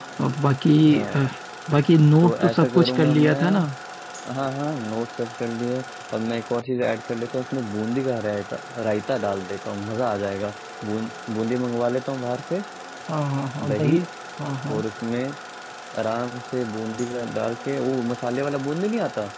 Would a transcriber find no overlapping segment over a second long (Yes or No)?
No